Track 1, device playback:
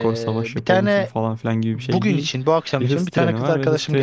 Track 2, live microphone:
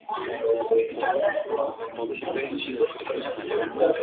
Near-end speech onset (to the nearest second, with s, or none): 1 s